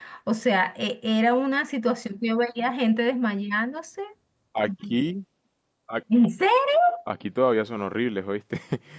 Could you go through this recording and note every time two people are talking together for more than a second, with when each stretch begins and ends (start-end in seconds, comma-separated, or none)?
none